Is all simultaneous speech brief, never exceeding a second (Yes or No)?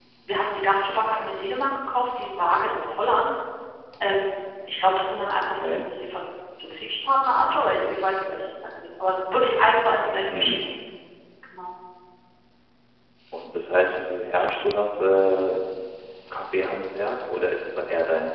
Yes